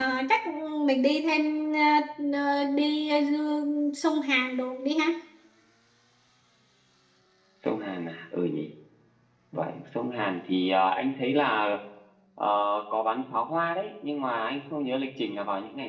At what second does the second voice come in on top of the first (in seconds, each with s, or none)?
none